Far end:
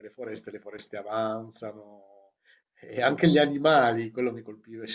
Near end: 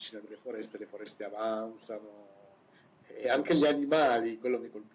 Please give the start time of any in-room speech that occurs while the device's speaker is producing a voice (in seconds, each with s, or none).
none